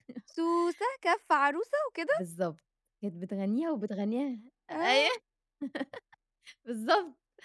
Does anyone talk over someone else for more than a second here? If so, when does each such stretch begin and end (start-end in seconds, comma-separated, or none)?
none